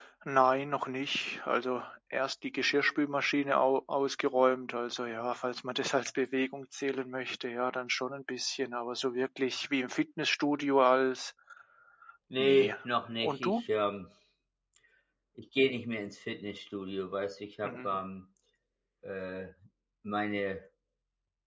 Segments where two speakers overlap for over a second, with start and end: none

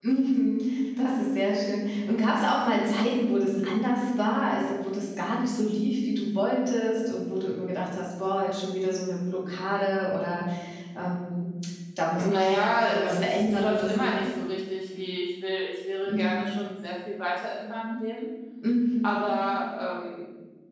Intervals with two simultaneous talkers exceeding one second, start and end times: 12.9-14.1

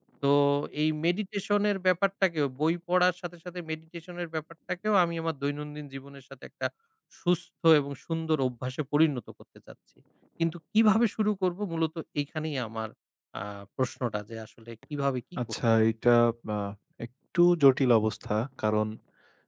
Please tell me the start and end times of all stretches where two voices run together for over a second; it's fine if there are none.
none

